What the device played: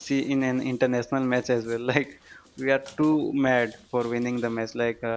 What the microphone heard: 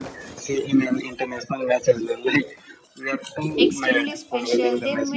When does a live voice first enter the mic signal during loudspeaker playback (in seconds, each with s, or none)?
3.6 s